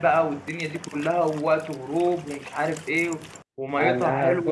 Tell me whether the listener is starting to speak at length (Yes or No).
Yes